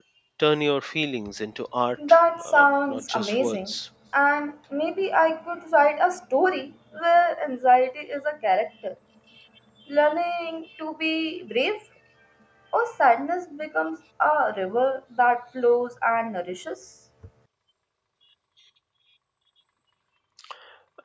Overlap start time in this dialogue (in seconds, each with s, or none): 2.0 s